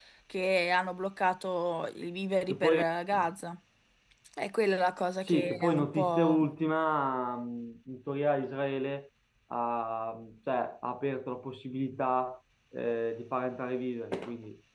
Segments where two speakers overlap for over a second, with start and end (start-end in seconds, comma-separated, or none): 5.2-6.5